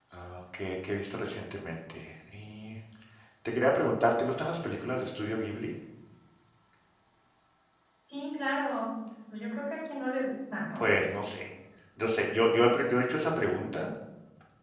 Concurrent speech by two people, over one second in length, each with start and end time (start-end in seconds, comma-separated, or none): none